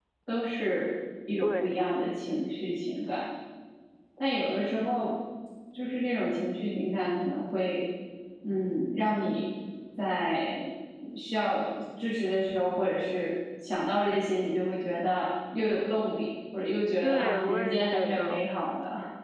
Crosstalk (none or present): present